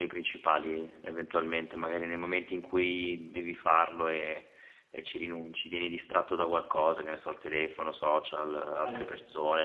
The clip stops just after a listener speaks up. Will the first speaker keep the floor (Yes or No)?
Yes